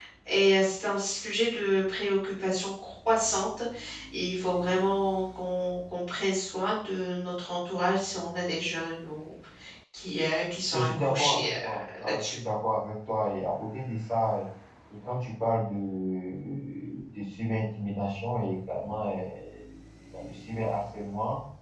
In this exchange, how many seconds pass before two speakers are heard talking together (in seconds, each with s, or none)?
10.7 s